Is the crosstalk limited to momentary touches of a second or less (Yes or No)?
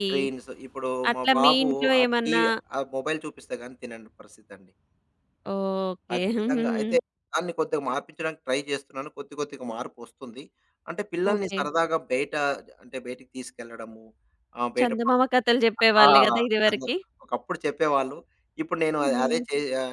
No